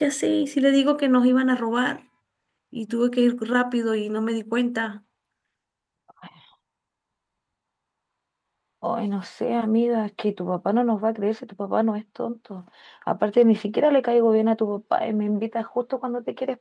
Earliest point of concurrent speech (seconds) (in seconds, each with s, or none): none